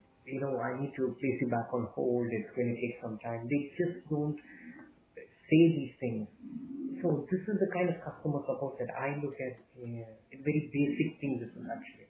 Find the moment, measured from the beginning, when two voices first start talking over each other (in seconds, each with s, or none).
none